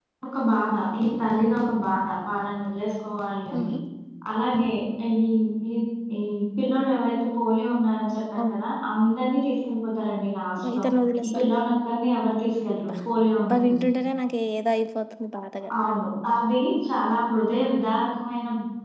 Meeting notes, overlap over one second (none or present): none